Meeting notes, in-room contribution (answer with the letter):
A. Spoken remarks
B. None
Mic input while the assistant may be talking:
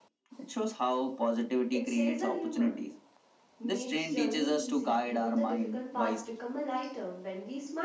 A